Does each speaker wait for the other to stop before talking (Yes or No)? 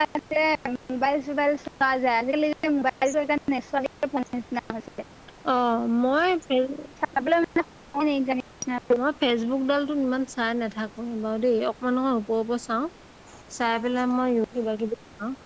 Yes